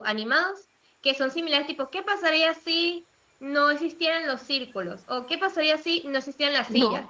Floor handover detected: No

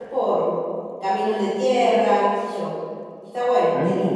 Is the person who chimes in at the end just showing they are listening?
No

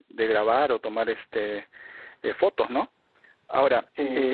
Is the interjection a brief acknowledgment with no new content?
Yes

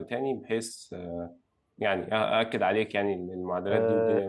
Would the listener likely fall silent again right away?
No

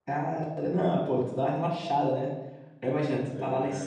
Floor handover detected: No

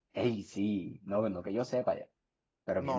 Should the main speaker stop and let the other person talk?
Yes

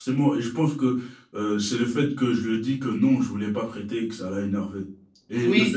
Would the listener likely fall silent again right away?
No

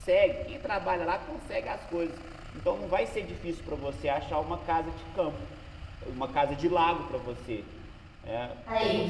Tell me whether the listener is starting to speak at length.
No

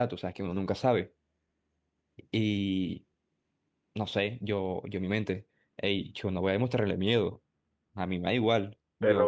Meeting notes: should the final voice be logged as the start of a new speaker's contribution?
Yes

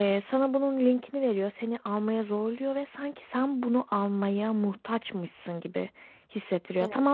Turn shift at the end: No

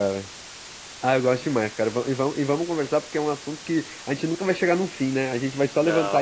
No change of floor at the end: Yes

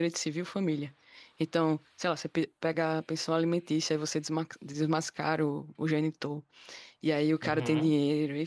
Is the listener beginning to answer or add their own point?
No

